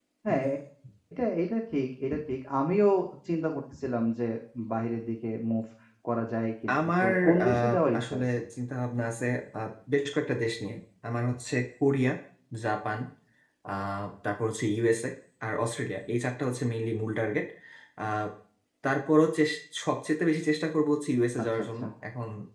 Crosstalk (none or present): present